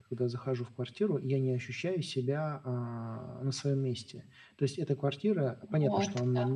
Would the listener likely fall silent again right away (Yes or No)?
Yes